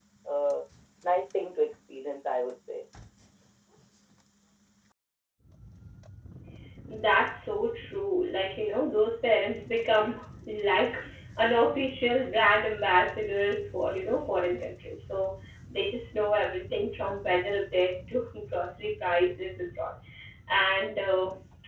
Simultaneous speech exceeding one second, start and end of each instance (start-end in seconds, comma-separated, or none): none